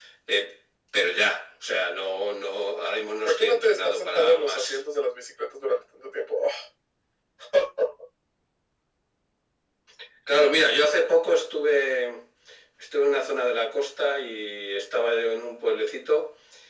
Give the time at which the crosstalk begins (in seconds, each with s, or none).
3.2 s